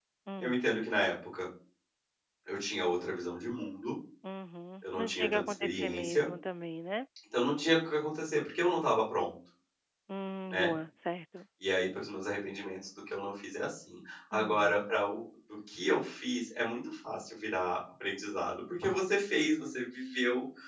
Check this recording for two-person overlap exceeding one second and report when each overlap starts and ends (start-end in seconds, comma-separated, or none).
4.8-6.3